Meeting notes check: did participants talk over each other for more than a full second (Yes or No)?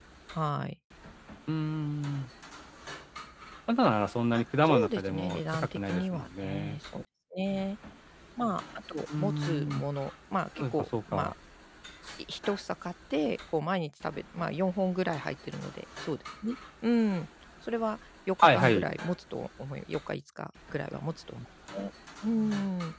Yes